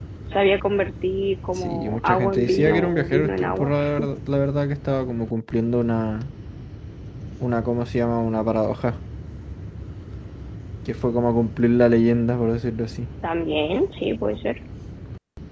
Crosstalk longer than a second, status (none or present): present